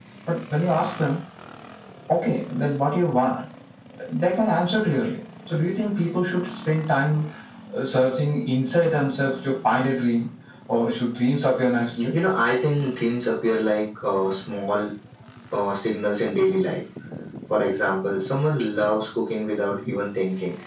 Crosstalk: none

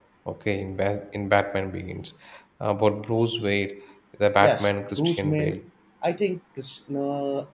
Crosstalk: present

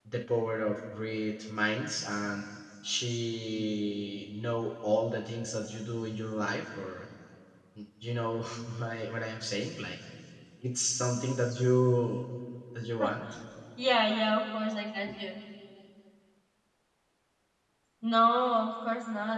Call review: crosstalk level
none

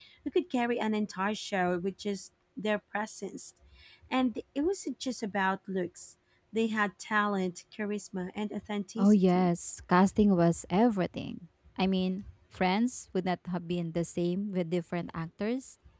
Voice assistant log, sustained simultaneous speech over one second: none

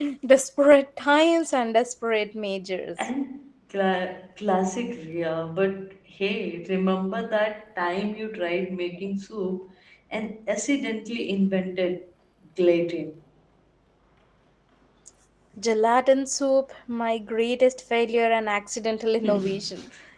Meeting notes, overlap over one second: none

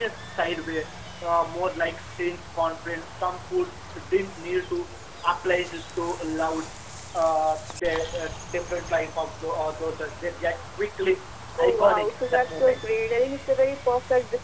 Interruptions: present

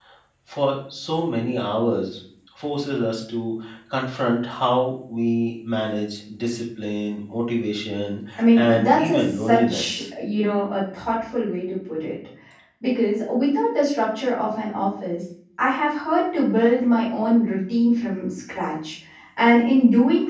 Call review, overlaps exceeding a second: present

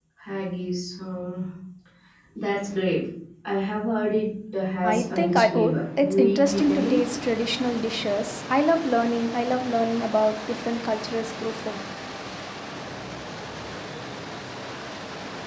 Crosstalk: present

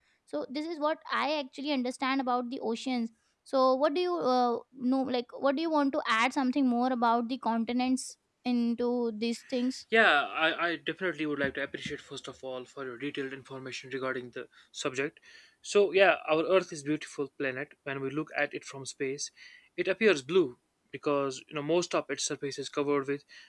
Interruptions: none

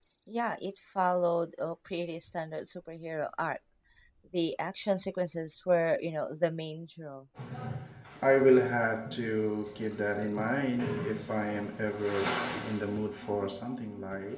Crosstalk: none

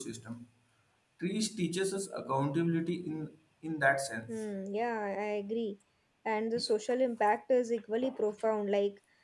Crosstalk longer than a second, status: none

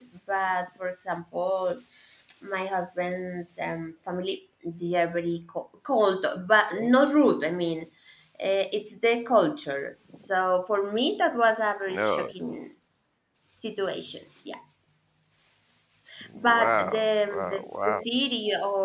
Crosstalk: present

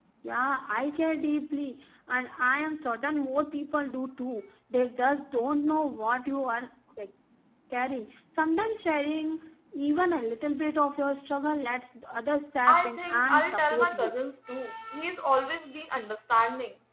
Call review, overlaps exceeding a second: present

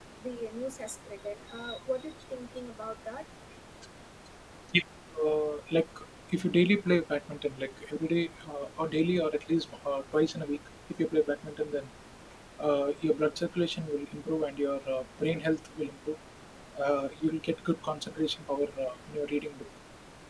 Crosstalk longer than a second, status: none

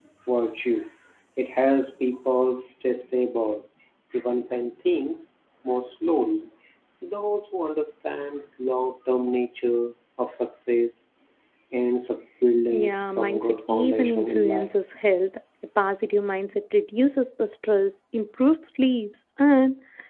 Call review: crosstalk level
present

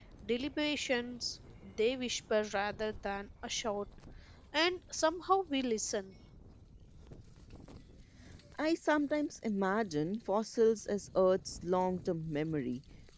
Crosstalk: none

